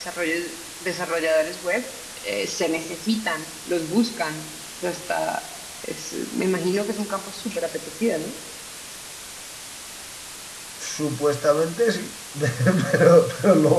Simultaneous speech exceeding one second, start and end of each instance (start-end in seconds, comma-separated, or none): none